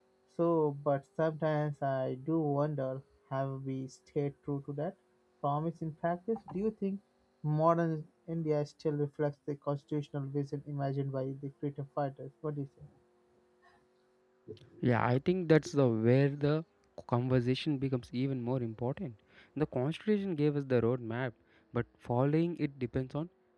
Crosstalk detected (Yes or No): No